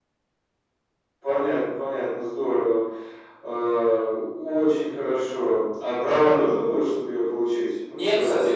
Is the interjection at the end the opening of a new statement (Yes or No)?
Yes